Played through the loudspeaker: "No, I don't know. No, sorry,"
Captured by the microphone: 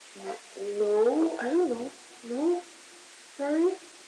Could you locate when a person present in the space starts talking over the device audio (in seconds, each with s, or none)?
none